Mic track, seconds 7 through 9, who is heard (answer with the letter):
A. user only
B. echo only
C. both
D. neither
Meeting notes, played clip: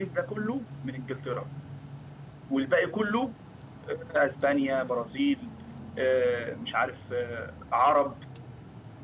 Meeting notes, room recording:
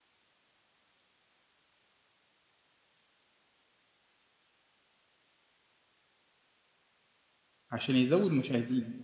A